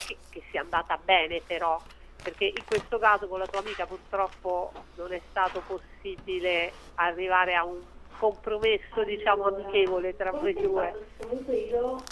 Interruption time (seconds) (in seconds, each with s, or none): 8.9 s